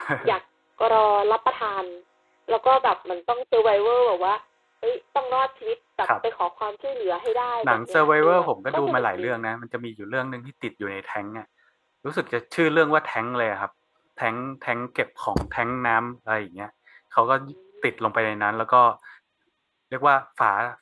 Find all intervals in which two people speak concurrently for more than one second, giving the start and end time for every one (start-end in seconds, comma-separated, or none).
7.6-9.2